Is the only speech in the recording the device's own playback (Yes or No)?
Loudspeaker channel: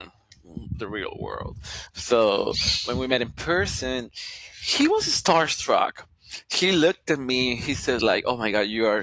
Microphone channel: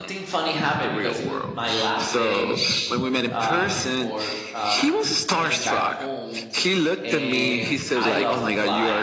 No